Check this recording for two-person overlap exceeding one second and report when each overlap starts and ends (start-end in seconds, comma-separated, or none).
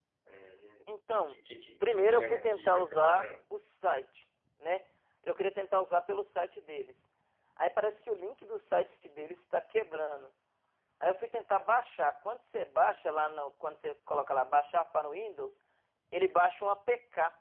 1.8-3.3